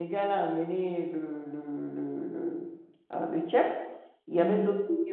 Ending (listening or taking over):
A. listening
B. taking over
A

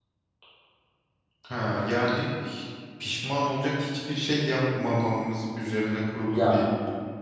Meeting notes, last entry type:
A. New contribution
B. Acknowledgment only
A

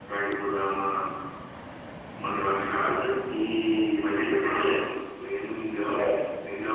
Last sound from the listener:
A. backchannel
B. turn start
A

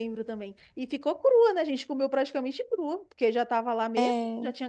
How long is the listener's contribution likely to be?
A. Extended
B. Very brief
B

